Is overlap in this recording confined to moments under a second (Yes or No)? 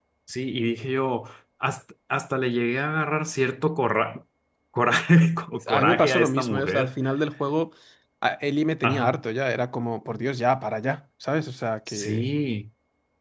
No